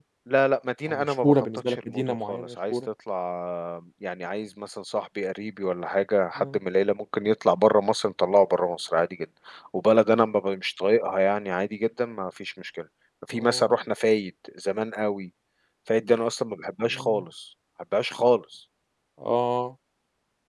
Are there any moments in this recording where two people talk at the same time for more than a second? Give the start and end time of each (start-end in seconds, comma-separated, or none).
0.9-2.8